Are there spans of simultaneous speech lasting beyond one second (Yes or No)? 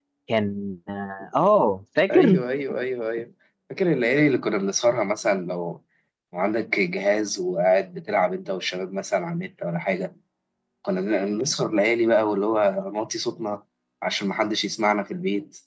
No